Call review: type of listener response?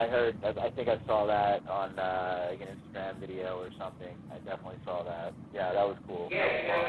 taking over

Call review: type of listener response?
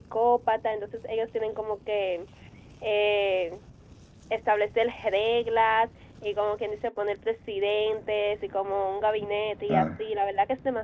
listening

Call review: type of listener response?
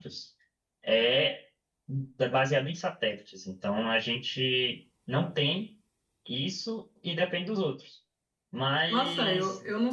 taking over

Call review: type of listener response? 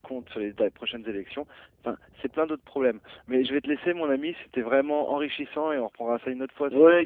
taking over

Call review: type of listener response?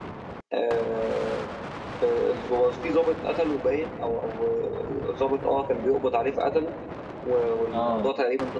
listening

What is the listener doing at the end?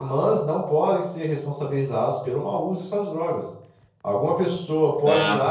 listening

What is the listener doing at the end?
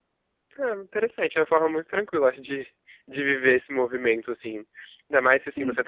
listening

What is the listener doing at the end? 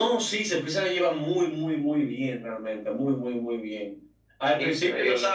listening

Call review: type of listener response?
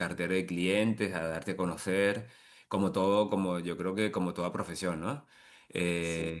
listening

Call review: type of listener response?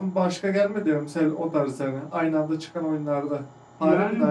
taking over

